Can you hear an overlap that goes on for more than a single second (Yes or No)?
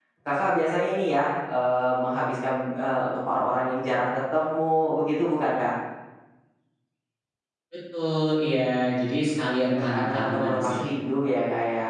Yes